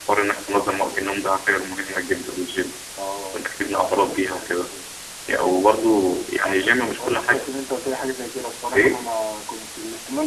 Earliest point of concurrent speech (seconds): 3.3 s

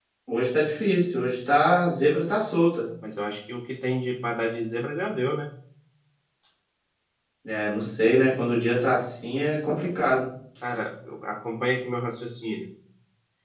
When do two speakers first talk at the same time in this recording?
none

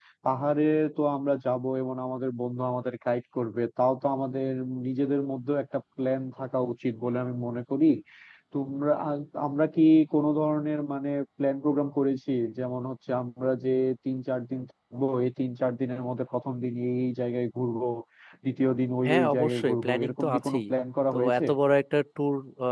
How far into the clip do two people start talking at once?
19.1 s

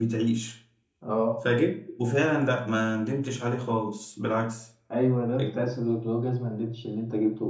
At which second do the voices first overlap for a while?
none

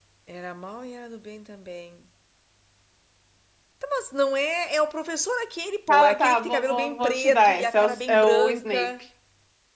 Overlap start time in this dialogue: 5.9 s

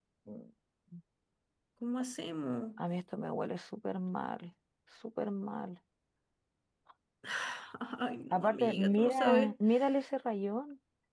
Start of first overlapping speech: 8.3 s

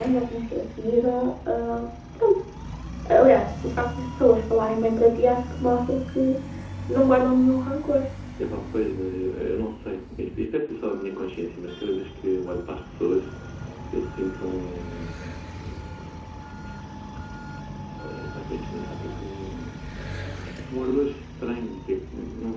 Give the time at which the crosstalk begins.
none

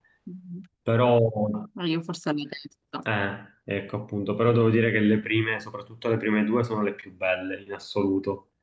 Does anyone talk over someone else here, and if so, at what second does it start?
none

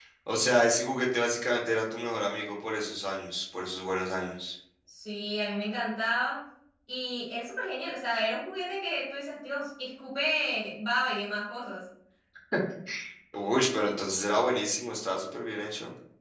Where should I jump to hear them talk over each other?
none

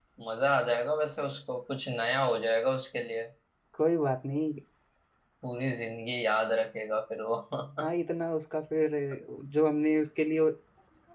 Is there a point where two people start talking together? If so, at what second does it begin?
none

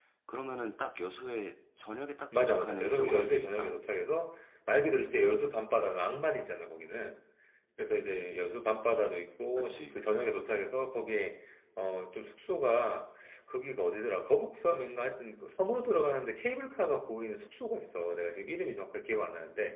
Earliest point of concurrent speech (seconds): 2.5 s

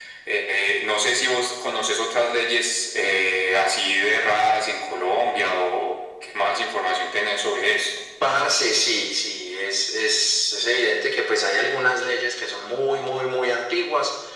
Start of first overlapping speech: none

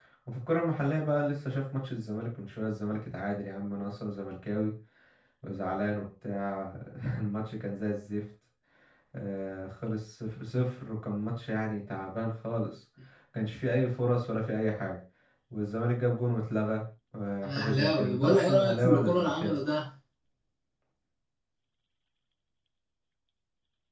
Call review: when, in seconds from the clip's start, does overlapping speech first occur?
17.4 s

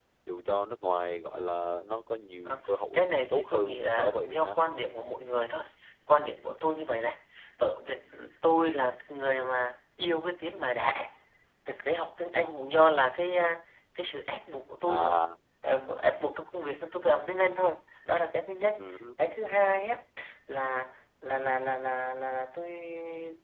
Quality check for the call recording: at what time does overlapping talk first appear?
2.5 s

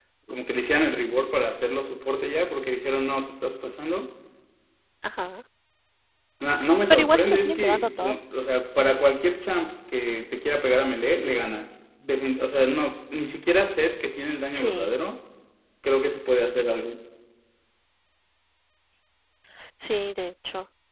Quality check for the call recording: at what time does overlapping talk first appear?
6.9 s

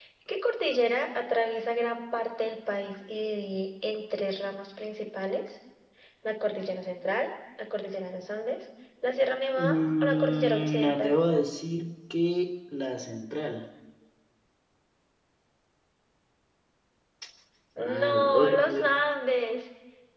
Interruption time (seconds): 9.5 s

